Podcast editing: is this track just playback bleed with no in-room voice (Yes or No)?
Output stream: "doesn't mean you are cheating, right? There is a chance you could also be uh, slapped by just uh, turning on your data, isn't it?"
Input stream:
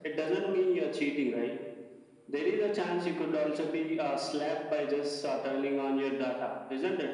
Yes